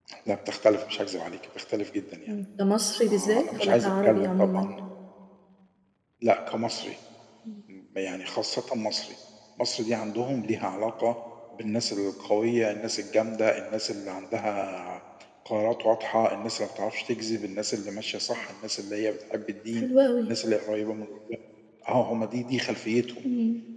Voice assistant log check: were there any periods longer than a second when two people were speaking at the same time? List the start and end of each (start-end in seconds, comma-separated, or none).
3.1-4.7